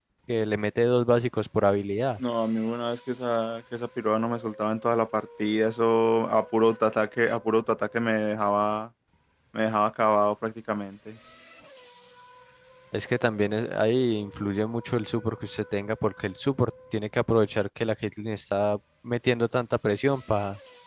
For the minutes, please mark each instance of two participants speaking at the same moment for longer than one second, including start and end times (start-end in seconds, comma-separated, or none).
none